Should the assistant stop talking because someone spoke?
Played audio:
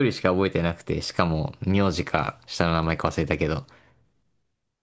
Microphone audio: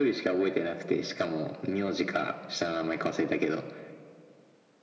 No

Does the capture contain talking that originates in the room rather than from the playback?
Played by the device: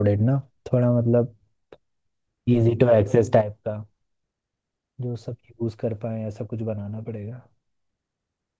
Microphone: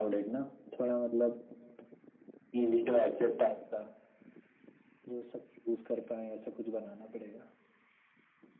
No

